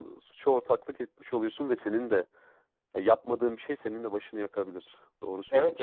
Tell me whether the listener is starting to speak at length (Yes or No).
Yes